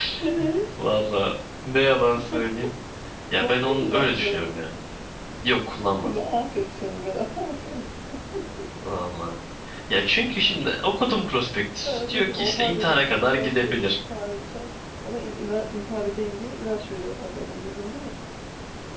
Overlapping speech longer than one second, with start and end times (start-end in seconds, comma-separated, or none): 3.4-4.6, 11.8-14.0